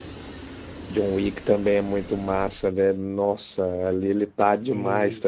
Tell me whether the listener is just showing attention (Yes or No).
Yes